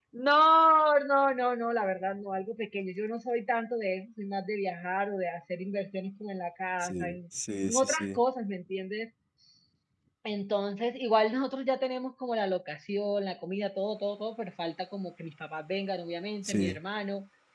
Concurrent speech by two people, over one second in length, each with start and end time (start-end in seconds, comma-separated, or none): none